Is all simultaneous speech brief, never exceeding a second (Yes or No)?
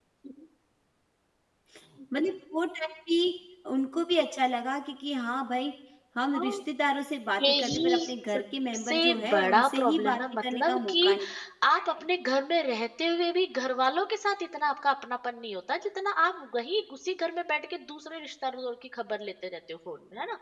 No